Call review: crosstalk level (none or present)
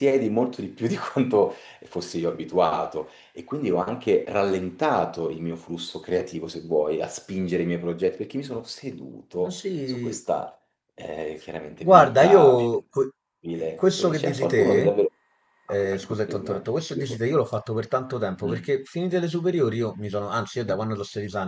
present